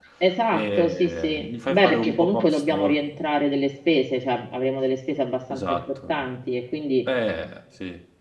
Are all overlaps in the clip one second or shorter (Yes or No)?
No